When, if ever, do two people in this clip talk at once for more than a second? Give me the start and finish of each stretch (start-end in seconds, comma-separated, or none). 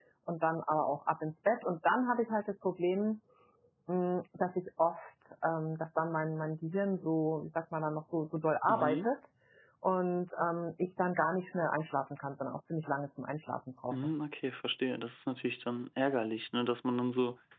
none